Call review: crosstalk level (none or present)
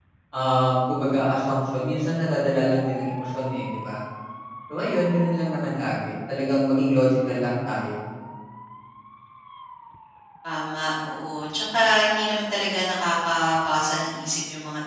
none